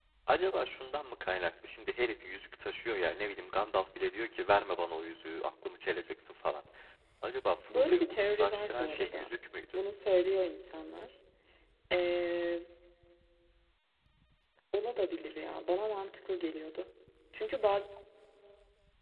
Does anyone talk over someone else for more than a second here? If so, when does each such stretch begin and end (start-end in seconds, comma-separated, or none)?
7.7-9.3